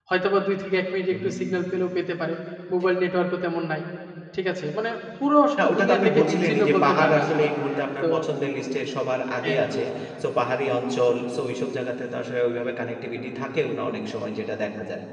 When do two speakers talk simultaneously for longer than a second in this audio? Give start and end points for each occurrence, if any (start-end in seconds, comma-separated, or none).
5.6-7.5